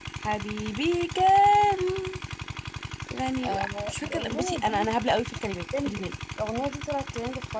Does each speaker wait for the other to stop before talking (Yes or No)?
No